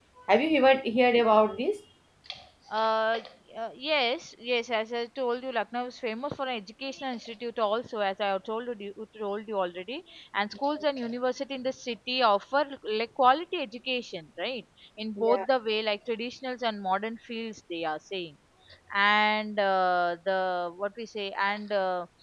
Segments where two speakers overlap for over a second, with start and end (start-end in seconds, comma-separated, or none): none